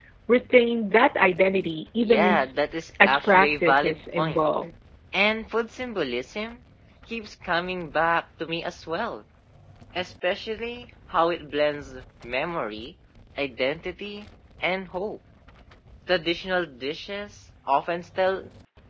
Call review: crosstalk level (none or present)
present